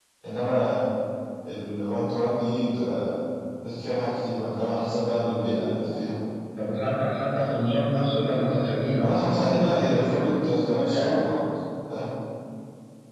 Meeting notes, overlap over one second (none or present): present